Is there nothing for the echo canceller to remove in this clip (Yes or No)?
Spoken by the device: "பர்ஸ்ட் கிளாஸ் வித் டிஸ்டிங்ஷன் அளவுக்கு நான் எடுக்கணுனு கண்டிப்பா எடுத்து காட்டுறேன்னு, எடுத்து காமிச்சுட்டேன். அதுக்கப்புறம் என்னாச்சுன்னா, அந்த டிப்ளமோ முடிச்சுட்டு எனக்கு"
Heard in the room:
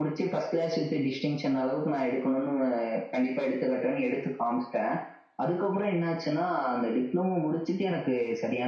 No